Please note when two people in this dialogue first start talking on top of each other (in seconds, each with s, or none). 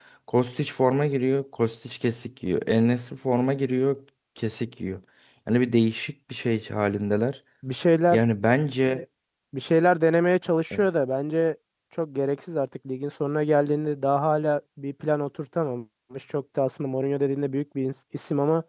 none